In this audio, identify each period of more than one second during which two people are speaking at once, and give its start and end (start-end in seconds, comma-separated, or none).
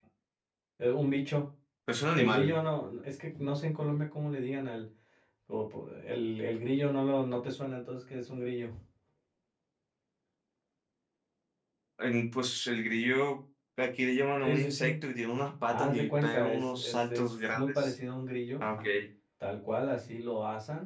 15.7-17.9